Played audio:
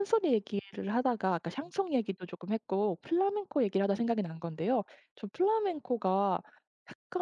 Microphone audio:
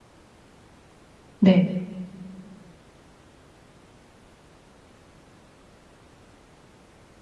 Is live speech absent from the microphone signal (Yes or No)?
No